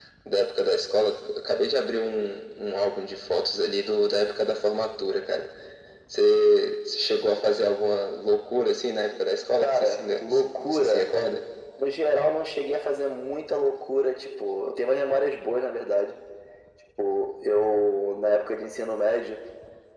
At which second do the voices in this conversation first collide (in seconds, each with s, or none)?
9.6 s